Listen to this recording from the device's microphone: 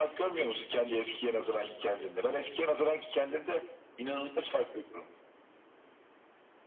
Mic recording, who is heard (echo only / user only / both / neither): echo only